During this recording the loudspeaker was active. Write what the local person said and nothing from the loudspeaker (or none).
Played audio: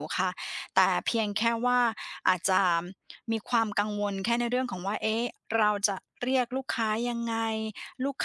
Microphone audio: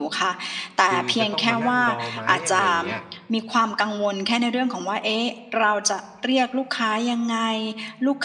คือจะต้องมานั่งรอไหมอะไรอย่างเงี้ย